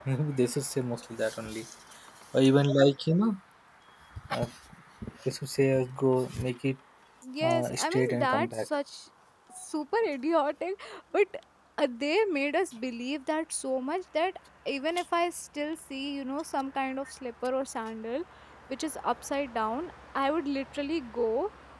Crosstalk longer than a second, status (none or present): present